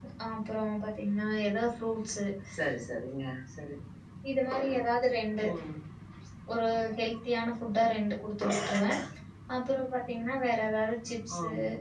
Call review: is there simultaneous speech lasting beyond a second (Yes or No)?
No